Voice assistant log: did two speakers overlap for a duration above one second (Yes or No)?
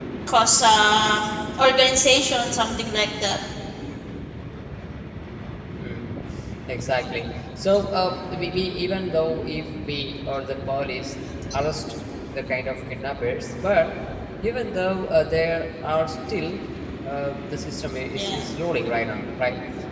No